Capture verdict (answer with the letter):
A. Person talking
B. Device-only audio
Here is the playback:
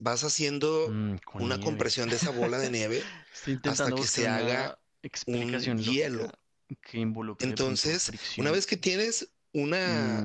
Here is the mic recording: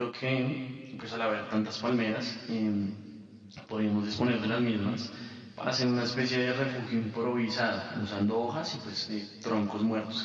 A